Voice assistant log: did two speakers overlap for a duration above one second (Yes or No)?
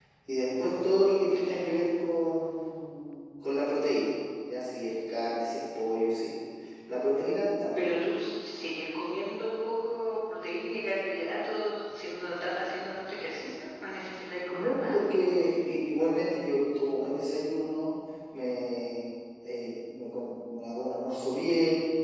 No